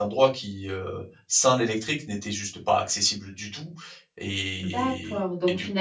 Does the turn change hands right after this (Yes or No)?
Yes